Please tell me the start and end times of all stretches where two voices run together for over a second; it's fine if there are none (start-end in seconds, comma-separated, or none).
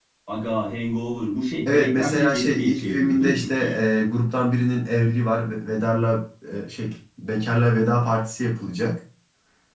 1.6-3.5